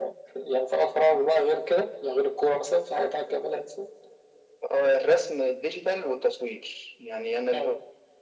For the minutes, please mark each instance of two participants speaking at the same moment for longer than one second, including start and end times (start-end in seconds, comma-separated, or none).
none